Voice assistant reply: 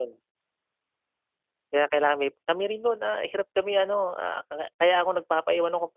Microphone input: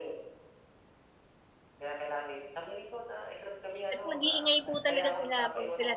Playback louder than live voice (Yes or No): No